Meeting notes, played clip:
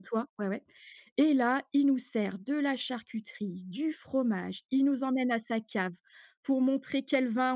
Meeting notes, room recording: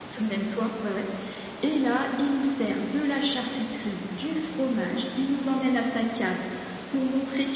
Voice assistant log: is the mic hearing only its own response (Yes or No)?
Yes